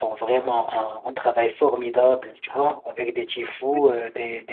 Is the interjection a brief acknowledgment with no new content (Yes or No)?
Yes